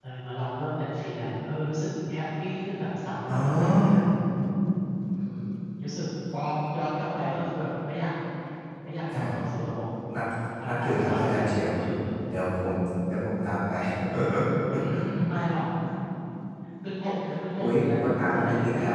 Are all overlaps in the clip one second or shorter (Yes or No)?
No